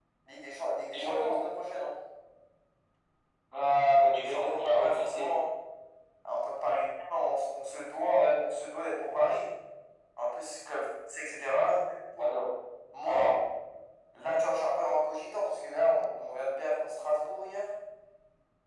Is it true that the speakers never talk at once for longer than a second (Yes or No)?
No